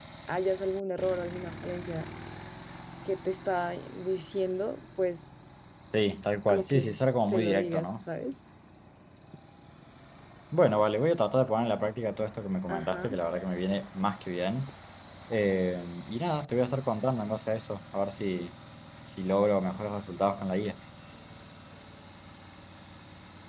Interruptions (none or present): present